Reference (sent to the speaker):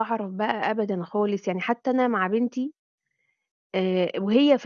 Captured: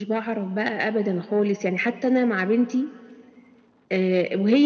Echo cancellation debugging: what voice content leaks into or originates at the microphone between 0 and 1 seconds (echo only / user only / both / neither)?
echo only